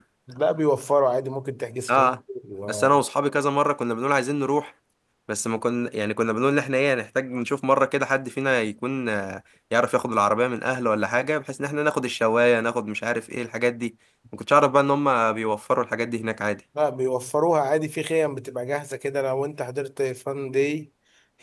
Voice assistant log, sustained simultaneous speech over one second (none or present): none